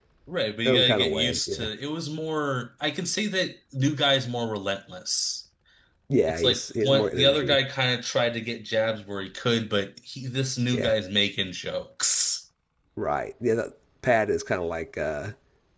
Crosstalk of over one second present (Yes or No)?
Yes